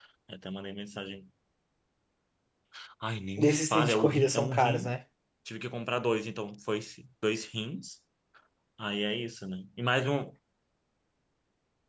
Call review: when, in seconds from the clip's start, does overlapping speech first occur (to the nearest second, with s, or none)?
3 s